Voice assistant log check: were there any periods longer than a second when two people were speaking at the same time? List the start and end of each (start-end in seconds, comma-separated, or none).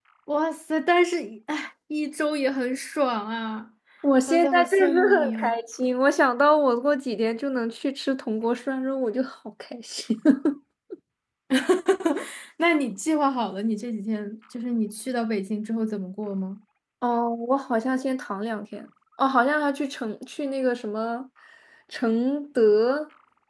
4.3-5.6